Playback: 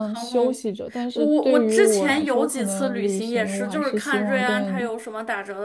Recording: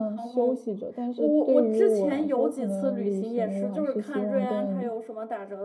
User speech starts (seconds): none

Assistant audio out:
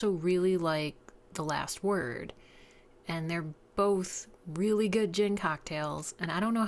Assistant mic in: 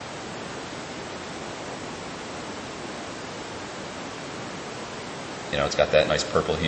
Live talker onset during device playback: 5.5 s

